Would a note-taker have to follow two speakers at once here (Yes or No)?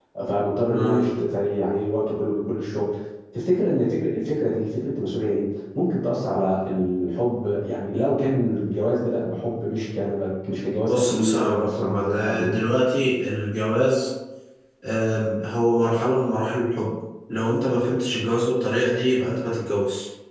Yes